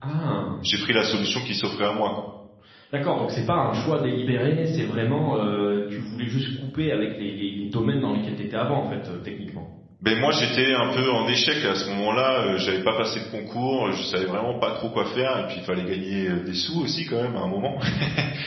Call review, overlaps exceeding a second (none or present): none